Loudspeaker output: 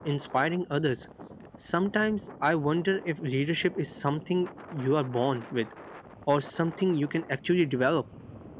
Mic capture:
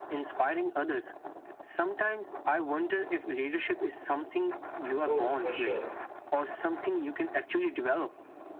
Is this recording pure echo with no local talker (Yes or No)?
No